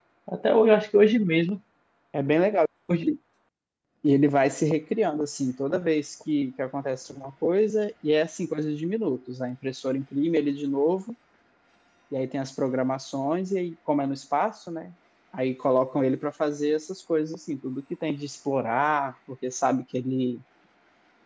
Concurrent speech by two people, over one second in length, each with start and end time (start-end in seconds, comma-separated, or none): none